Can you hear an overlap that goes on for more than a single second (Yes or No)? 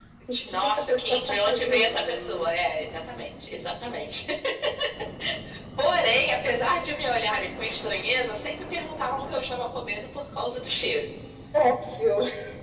Yes